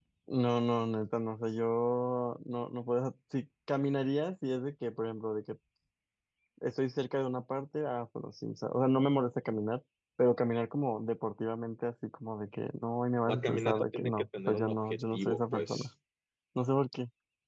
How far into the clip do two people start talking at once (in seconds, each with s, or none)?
13.2 s